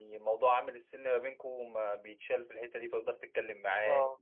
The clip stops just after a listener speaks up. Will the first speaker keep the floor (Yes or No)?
Yes